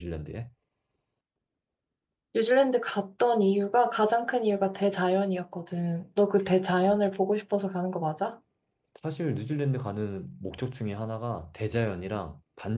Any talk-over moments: No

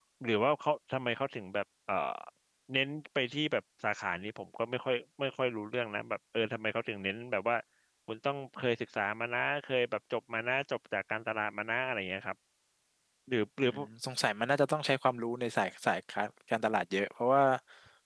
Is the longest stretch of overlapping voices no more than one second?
Yes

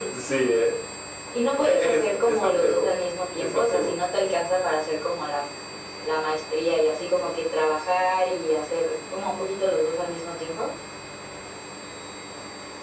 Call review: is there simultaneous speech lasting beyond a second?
Yes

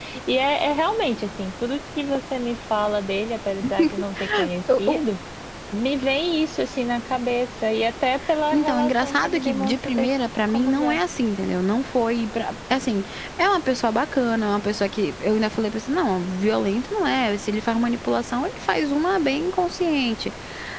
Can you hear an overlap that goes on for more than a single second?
Yes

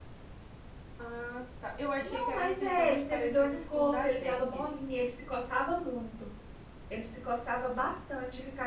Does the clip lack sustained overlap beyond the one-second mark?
No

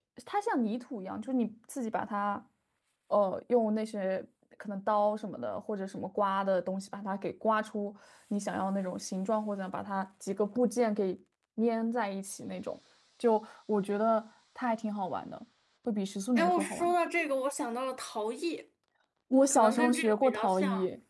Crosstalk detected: Yes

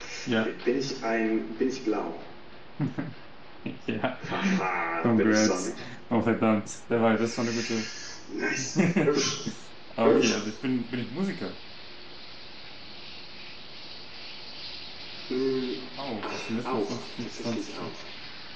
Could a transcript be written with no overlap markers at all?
No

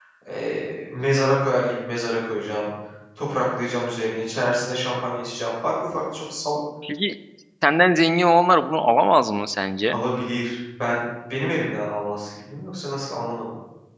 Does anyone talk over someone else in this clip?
No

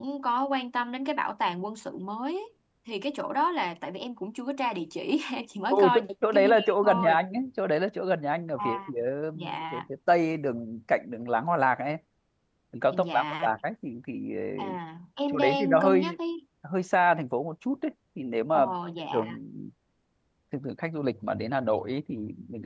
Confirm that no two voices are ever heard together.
No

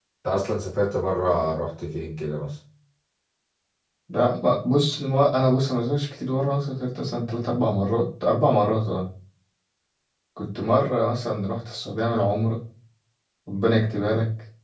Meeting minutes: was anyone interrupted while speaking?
No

